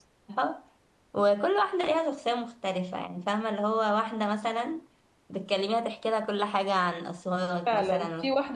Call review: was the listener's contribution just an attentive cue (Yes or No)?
No